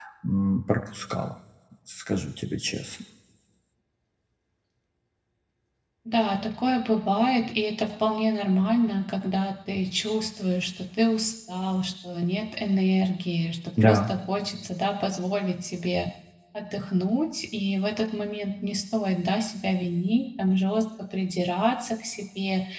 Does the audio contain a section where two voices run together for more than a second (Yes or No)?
No